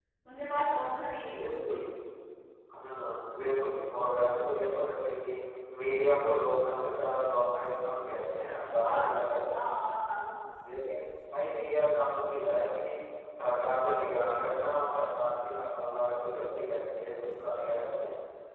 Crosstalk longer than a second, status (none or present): none